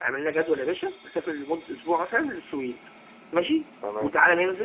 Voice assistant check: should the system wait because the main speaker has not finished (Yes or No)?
Yes